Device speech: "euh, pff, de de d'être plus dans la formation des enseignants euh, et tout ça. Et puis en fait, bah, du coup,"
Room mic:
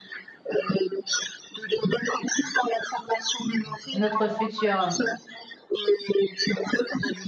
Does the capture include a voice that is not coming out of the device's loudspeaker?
Yes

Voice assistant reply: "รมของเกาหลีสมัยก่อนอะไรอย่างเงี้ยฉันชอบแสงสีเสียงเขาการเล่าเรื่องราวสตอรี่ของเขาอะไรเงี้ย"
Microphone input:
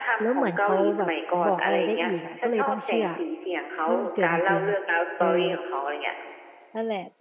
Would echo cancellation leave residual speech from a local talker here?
Yes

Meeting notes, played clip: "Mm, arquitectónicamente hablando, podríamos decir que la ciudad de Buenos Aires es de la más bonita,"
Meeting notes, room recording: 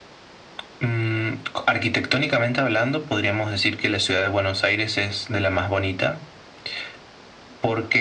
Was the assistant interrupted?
No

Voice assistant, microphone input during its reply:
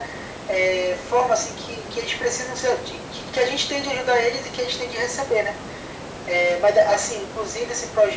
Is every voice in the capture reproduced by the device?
Yes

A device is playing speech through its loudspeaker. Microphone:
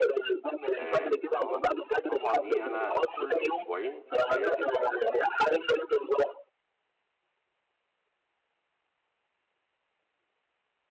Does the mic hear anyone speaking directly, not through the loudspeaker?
Yes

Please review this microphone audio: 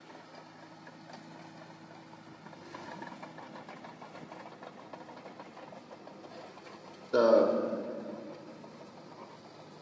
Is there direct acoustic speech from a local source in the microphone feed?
Yes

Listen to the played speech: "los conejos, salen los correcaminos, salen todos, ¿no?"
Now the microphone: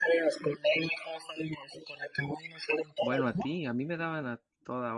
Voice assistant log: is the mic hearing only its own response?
No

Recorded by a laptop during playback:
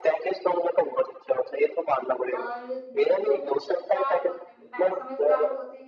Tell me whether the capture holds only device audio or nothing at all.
No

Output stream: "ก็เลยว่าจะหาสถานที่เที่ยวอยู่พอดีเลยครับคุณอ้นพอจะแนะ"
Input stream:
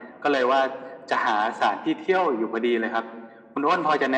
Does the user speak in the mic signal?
No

